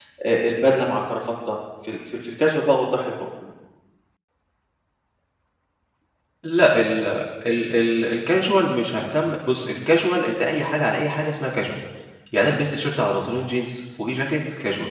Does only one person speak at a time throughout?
Yes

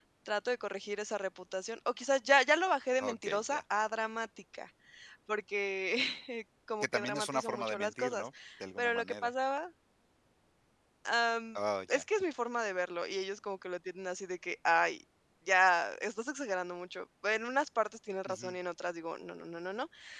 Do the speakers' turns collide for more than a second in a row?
Yes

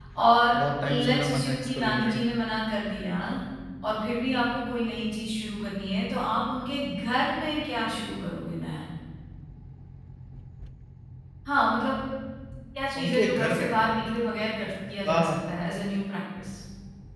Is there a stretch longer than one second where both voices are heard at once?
Yes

